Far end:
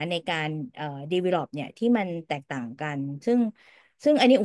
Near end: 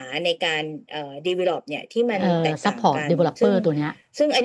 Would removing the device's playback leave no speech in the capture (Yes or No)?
No